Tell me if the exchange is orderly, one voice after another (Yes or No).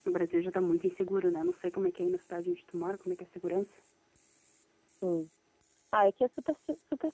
Yes